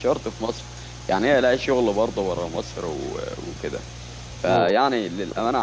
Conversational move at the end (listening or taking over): listening